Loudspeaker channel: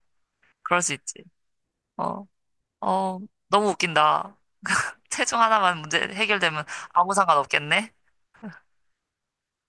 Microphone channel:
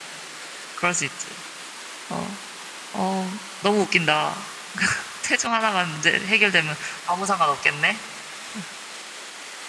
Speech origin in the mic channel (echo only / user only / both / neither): echo only